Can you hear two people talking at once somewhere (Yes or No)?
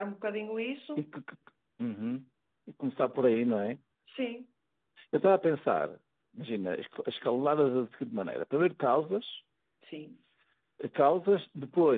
No